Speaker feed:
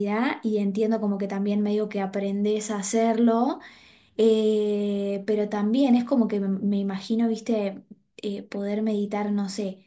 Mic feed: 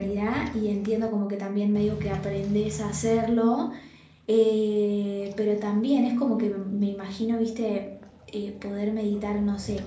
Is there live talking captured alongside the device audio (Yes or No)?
No